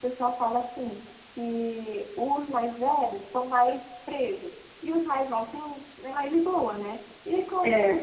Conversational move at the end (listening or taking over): listening